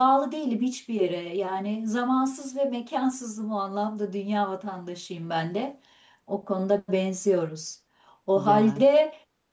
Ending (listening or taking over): listening